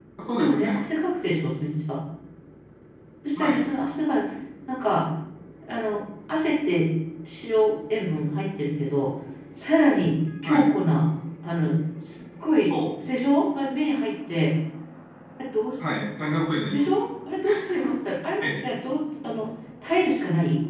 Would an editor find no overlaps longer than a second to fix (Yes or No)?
Yes